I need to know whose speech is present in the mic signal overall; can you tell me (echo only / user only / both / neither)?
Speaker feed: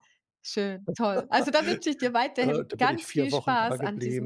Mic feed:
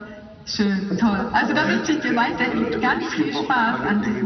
both